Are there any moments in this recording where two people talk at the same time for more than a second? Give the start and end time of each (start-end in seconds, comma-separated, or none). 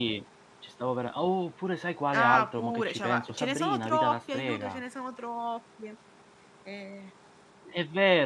2.1-4.8